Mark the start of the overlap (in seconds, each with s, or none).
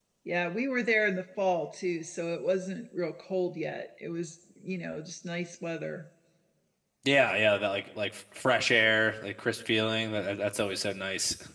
none